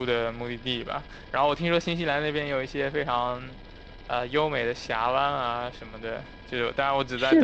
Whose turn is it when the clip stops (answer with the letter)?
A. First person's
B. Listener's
A